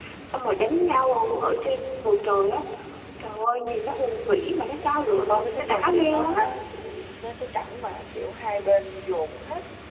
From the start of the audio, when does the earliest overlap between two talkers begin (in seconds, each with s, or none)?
5.1 s